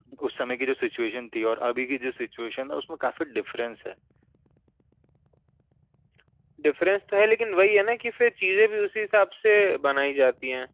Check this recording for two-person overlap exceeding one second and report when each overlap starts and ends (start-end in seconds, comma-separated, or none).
none